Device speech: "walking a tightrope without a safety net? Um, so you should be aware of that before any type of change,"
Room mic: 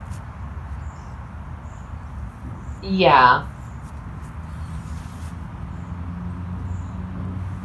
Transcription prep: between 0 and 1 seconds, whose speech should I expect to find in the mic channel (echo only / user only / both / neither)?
neither